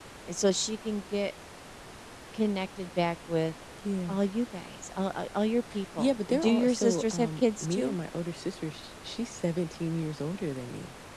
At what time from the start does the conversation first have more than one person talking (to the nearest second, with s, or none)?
6 s